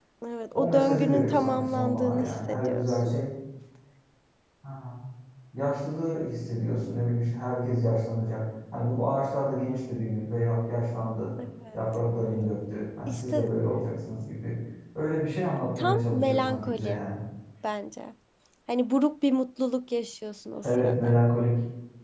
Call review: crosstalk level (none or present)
present